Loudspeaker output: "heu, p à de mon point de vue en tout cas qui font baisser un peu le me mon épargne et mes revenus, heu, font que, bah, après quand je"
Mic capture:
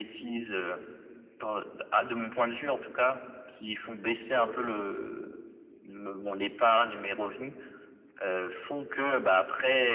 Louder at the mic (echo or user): echo